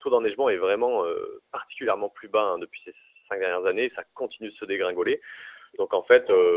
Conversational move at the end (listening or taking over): listening